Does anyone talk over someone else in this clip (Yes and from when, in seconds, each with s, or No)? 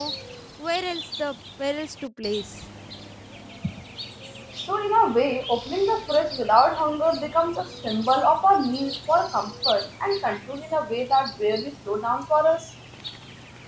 No